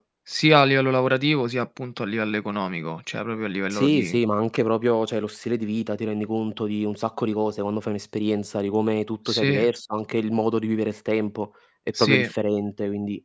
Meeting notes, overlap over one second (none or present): none